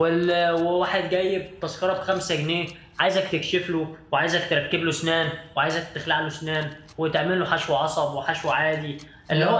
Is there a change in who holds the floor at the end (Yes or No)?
No